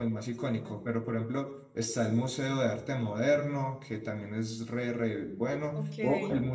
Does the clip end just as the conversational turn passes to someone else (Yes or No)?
No